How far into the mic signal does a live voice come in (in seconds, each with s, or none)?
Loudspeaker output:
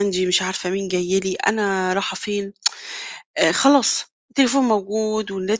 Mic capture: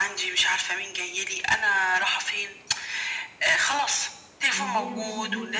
4.5 s